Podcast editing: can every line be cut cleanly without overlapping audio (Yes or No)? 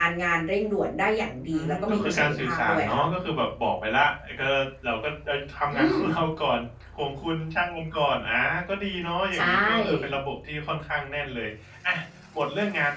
No